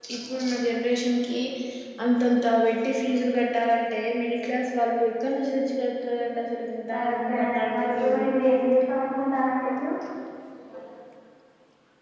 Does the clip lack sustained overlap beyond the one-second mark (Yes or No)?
No